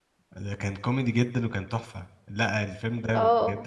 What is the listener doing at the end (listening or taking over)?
listening